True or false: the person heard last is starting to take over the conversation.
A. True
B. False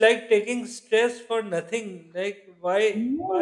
B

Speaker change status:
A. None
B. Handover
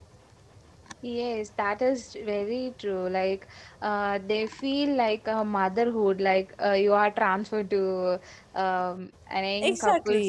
B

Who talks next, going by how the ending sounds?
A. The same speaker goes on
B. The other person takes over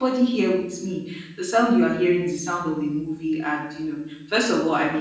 A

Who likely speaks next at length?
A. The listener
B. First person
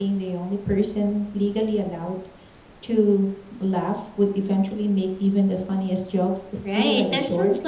A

